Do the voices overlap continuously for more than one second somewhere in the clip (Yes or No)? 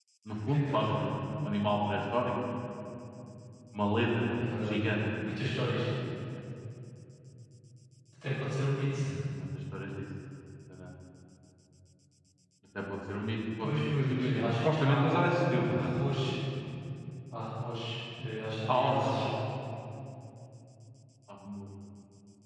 Yes